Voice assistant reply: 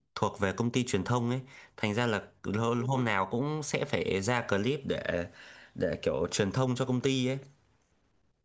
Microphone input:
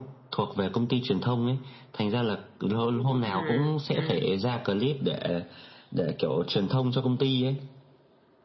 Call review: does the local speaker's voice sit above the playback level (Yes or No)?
No